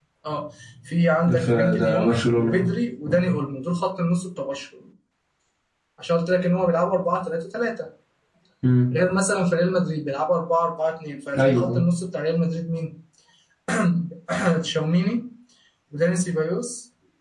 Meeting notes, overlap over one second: present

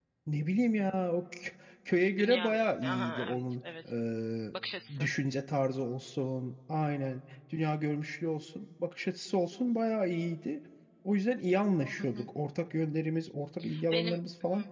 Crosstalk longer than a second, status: present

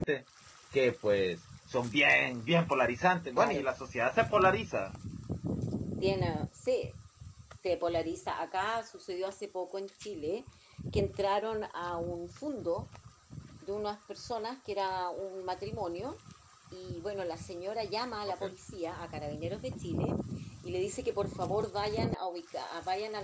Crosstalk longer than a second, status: none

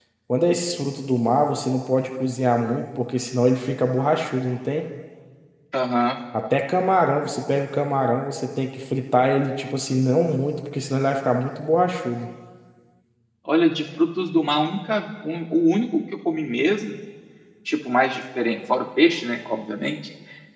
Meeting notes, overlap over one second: none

